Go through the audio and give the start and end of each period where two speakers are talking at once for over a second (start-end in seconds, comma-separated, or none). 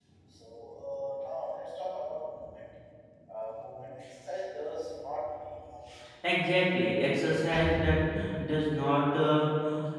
none